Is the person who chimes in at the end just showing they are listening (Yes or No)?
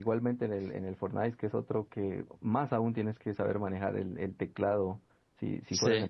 Yes